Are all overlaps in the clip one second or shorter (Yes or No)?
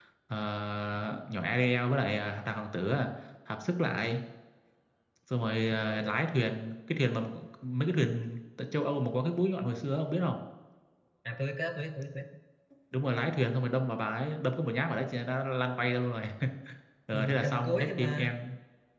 No